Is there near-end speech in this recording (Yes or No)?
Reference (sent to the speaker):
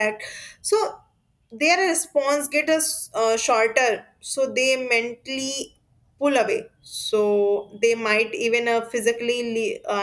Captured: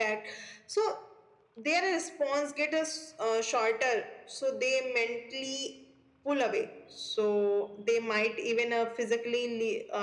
No